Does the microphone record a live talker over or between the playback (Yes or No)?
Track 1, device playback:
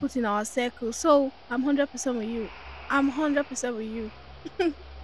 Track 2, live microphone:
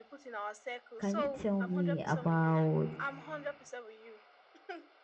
Yes